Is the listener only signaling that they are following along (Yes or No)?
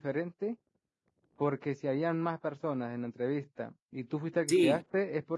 Yes